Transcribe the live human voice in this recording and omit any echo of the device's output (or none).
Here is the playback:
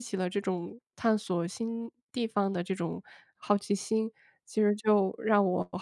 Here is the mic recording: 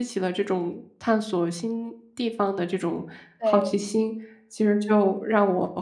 对。